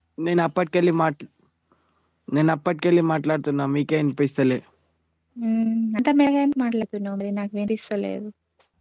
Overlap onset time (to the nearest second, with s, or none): none